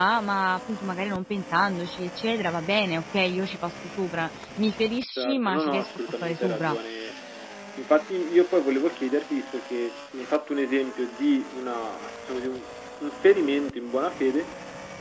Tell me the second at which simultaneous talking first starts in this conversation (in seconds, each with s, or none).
5.2 s